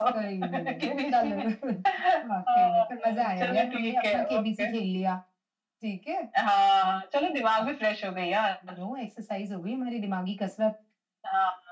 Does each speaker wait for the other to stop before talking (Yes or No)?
No